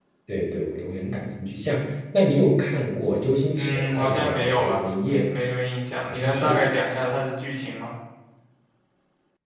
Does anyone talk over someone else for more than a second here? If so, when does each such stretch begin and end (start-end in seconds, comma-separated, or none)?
3.5-5.3